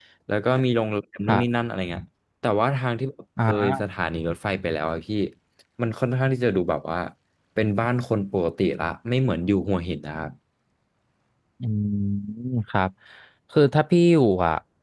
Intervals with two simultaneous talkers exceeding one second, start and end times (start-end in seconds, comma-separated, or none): none